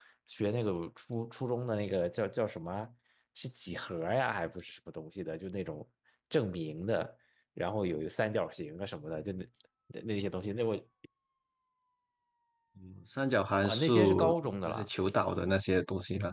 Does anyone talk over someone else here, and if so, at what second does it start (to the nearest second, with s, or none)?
14 s